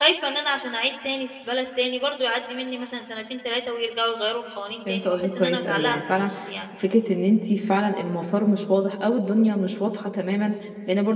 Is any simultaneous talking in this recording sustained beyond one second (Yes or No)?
Yes